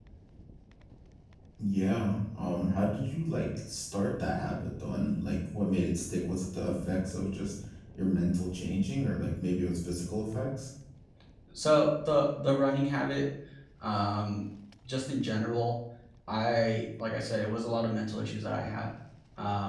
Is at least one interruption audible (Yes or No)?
No